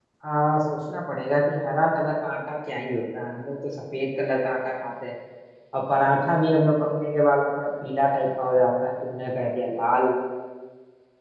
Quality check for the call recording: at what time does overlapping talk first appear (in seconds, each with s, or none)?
none